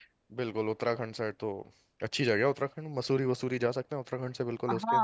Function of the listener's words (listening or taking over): taking over